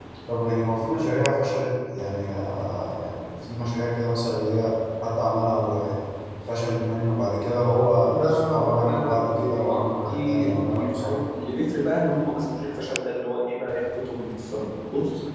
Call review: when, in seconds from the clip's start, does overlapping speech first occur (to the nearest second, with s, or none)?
8 s